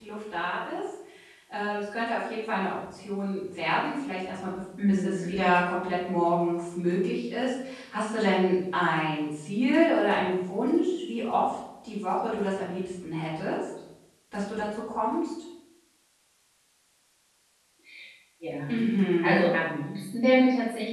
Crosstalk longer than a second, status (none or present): none